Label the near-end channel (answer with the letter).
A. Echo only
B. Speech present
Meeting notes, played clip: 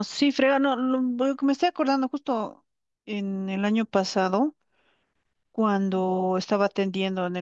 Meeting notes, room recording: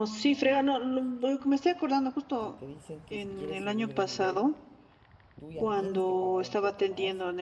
B